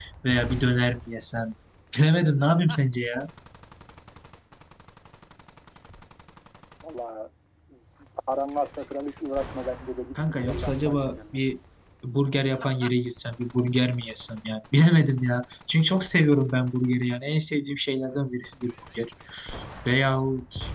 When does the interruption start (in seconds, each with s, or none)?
10.2 s